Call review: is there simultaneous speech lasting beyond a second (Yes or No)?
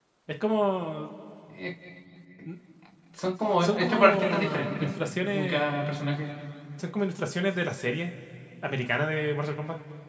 Yes